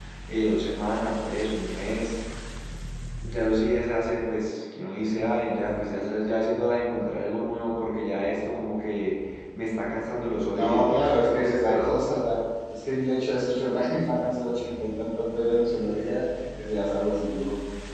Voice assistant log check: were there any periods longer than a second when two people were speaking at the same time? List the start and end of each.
10.5-11.8

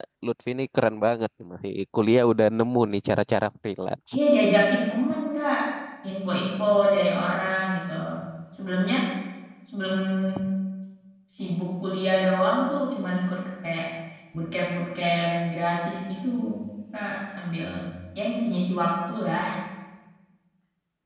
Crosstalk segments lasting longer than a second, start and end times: none

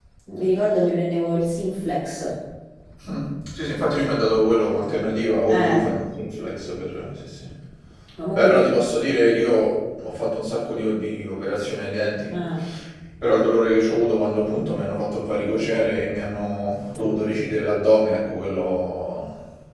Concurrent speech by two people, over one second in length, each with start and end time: none

